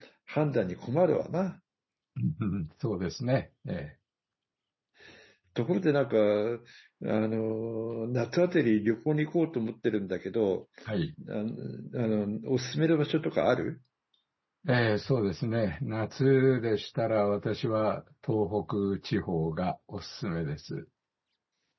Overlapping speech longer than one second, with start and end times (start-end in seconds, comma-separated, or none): none